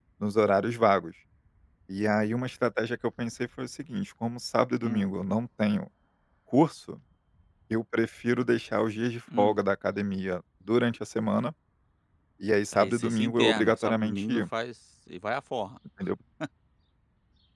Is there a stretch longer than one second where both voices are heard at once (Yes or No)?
Yes